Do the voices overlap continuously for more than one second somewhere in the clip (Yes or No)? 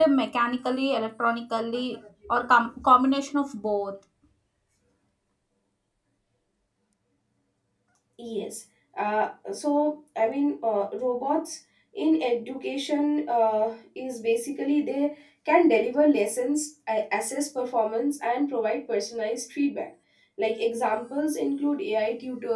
No